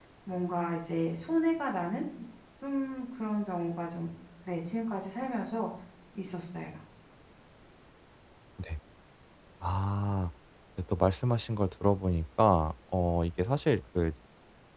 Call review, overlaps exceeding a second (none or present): none